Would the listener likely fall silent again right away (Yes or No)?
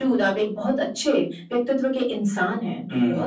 No